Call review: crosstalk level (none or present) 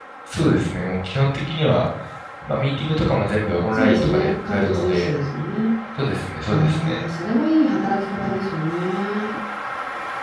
present